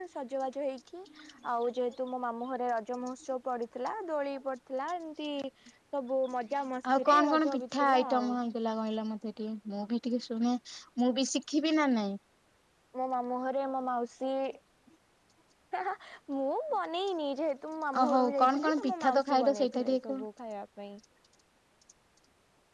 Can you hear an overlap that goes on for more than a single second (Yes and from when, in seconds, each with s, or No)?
Yes, from 7.0 s